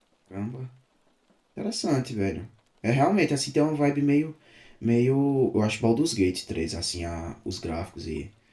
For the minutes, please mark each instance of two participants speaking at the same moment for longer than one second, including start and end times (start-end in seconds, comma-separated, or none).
none